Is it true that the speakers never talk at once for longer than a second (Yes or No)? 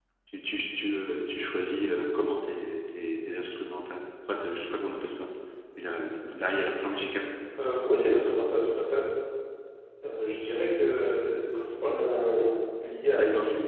Yes